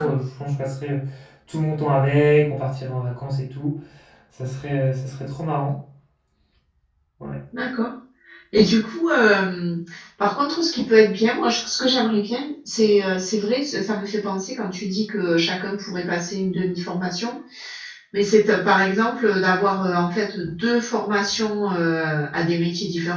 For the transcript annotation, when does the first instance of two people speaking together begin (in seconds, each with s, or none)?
none